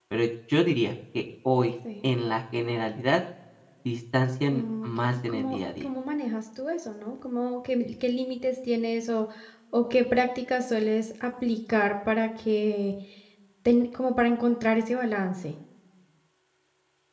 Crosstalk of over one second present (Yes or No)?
Yes